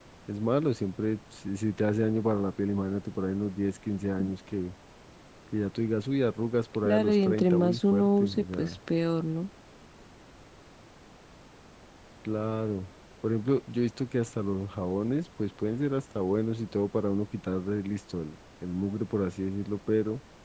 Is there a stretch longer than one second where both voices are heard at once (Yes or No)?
Yes